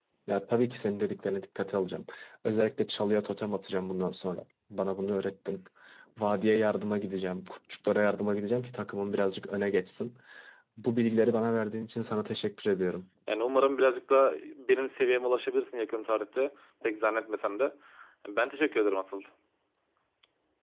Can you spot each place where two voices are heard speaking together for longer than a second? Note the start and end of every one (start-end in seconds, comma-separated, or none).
none